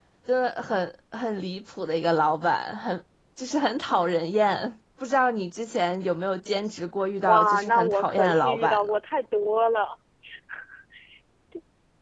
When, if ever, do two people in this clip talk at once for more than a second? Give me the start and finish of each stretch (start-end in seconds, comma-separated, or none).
7.2-8.9